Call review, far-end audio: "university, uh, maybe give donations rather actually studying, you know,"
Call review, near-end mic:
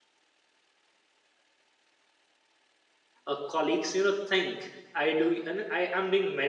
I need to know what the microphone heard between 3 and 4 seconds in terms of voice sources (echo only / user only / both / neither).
user only